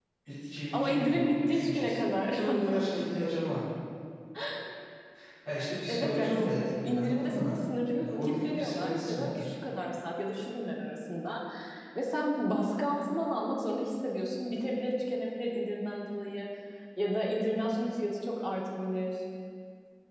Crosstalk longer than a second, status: present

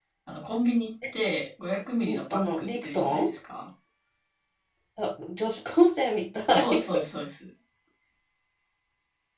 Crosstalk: present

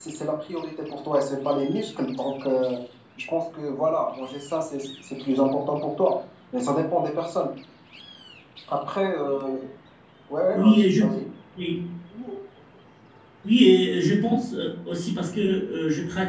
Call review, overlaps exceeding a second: none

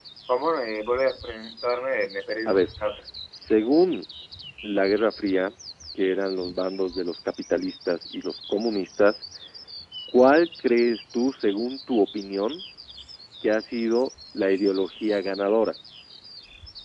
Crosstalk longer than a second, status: none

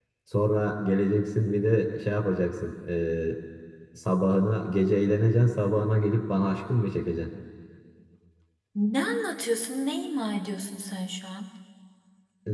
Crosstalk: none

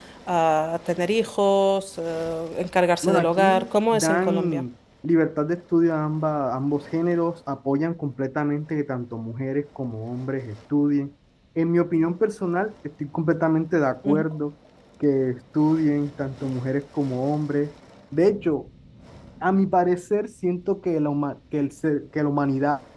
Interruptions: present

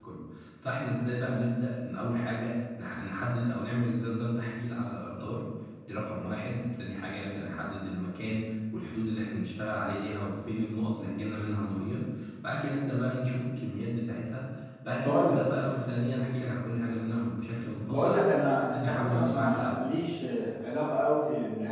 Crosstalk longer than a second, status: present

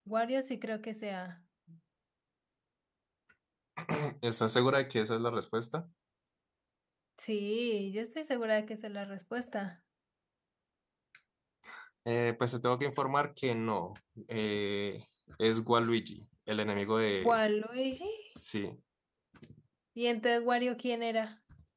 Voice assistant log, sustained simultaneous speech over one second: none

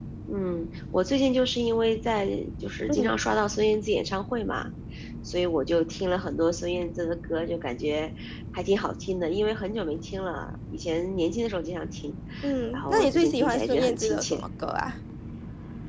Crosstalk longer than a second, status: present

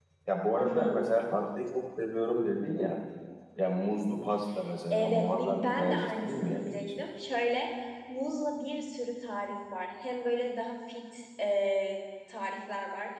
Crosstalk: present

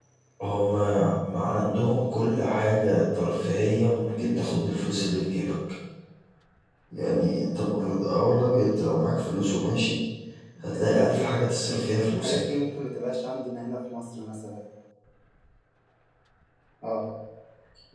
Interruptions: present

